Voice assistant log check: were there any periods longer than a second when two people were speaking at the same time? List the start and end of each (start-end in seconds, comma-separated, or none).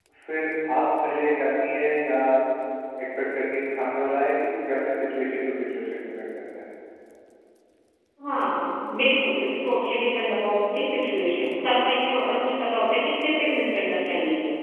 none